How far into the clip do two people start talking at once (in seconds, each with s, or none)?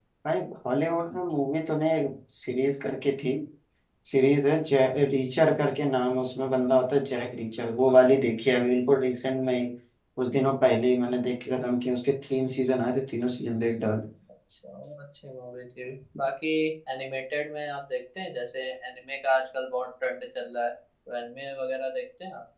none